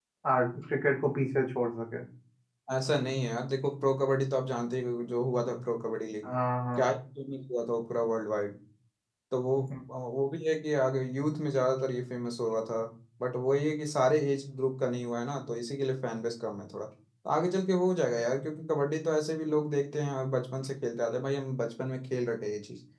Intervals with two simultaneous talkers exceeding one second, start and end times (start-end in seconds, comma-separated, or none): none